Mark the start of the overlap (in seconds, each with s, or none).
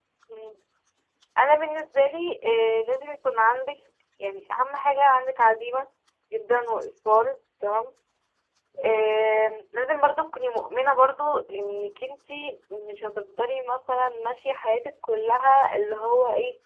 none